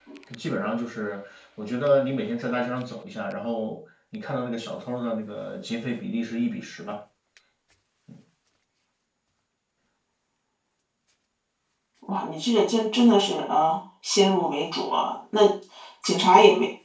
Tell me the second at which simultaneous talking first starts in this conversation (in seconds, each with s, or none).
none